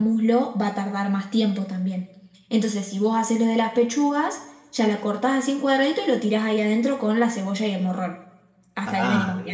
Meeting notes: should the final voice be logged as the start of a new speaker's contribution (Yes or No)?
Yes